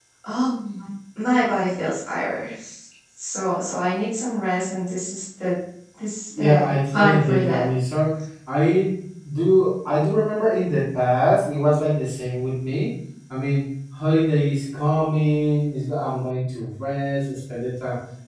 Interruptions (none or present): present